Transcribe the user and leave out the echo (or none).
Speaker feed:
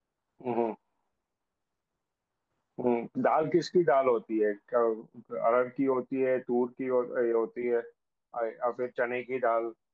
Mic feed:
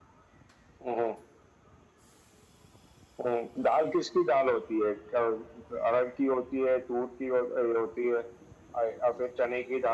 none